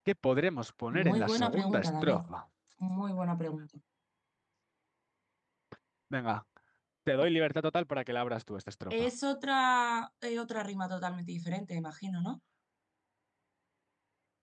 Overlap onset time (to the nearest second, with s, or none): 1 s